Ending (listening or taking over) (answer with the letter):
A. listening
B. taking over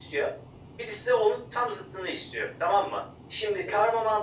A